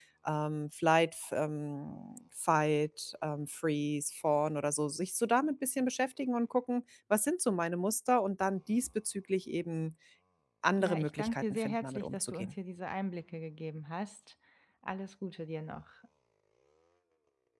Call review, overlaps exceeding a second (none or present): present